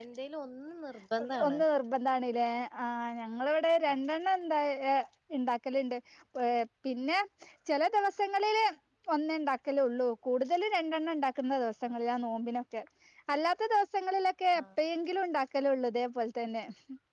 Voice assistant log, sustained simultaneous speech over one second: none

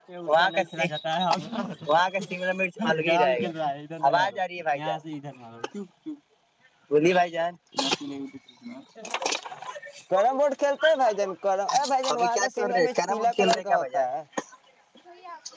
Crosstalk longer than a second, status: present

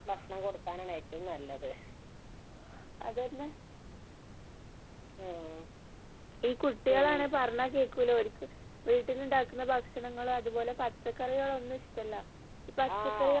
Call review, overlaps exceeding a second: none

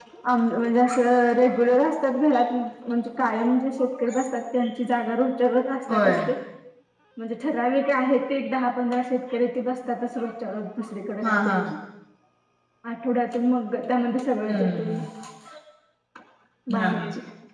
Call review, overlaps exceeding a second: none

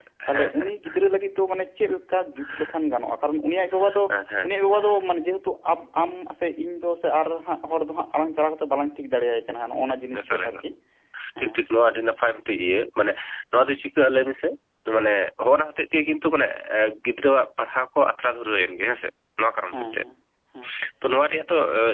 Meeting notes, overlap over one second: none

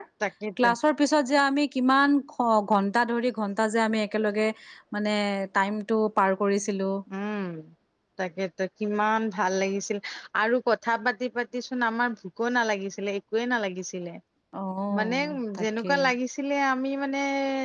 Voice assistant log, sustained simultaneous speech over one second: none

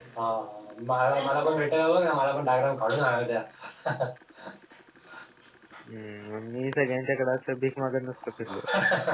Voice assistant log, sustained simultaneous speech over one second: none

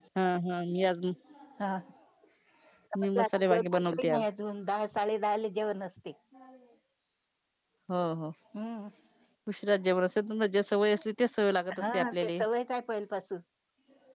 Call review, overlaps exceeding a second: present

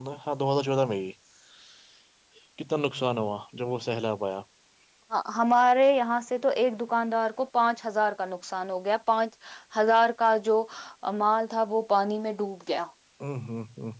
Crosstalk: none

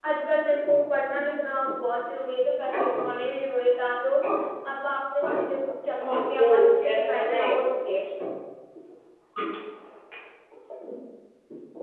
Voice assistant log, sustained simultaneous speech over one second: present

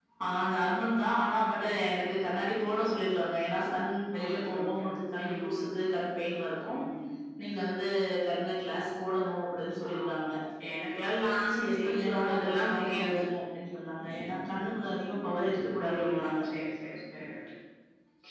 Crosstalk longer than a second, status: present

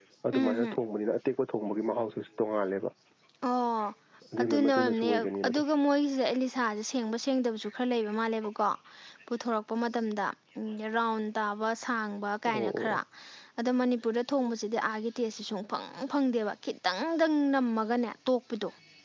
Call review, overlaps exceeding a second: present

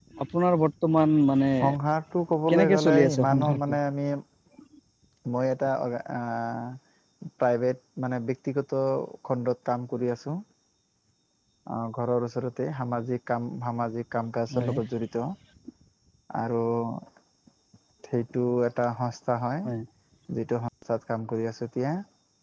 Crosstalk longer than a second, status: present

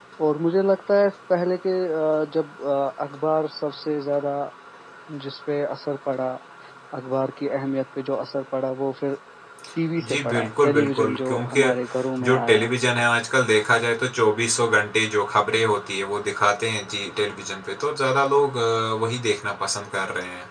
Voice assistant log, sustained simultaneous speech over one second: present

